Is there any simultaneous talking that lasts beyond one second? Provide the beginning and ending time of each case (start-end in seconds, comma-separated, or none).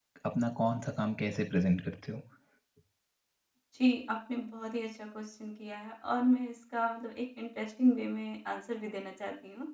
none